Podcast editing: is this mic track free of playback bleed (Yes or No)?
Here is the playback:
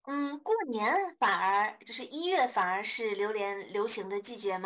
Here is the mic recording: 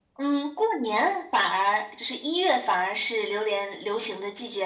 No